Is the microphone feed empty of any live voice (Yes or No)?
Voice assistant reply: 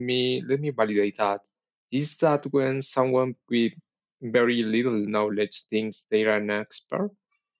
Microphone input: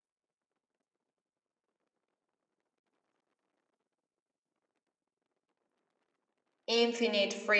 No